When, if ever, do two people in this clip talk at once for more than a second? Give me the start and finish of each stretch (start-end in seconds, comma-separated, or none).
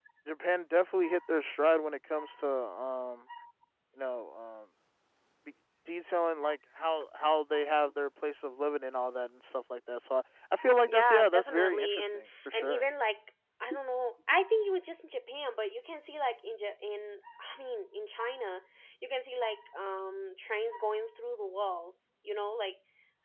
10.8-12.8